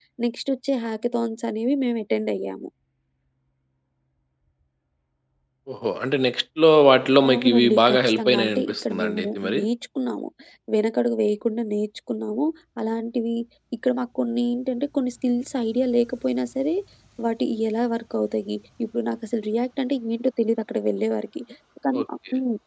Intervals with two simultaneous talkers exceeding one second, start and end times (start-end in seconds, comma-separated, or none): 7.3-9.6